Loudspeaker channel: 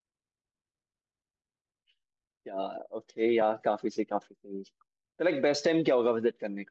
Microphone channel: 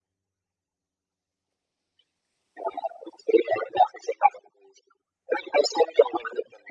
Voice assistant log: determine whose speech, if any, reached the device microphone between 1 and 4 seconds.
echo only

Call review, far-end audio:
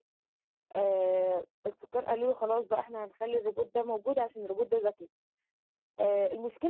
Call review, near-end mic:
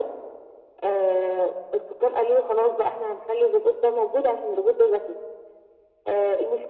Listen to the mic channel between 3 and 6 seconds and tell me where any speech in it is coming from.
echo only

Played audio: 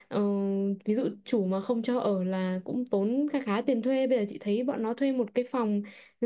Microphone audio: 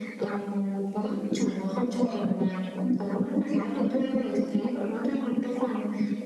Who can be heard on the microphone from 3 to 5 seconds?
echo only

